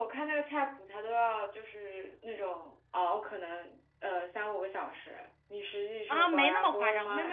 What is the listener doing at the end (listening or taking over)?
taking over